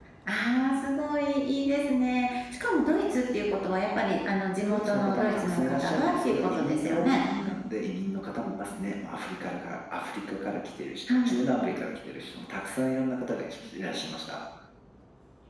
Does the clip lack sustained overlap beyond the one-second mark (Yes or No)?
No